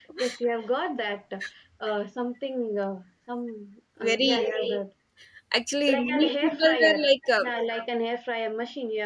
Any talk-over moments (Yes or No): Yes